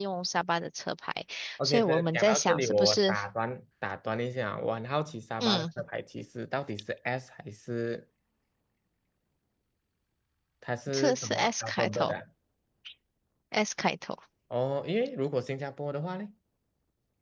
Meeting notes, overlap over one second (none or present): present